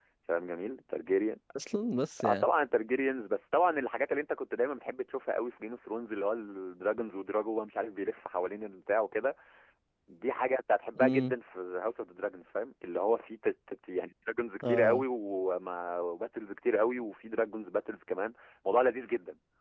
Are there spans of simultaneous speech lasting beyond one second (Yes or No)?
No